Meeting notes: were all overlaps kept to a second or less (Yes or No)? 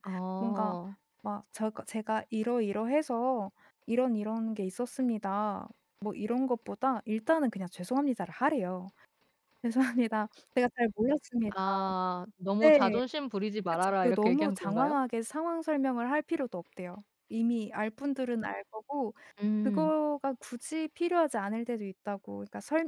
No